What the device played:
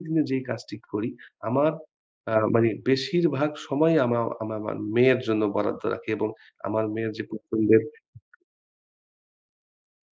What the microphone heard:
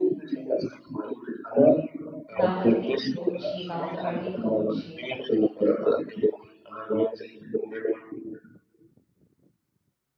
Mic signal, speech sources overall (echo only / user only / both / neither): both